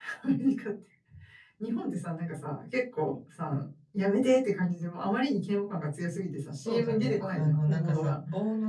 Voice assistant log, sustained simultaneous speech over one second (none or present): present